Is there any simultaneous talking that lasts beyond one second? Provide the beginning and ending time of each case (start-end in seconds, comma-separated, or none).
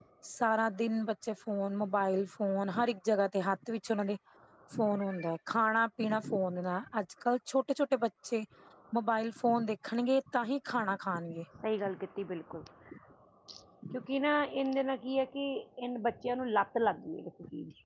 none